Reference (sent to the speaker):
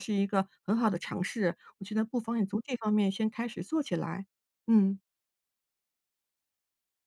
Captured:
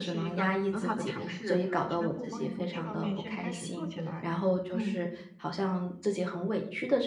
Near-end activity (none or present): present